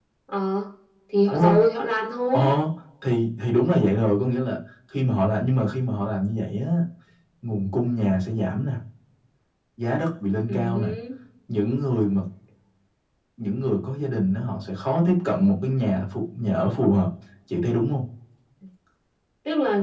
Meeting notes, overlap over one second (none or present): none